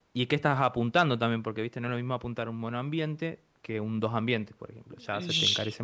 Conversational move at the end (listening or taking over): taking over